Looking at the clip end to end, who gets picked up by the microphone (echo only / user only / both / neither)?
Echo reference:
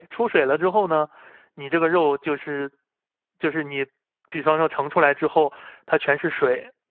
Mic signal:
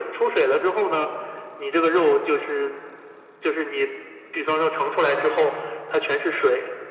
echo only